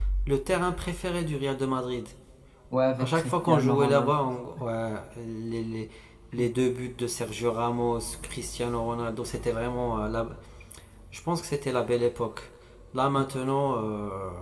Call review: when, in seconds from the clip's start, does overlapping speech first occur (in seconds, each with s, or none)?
3.0 s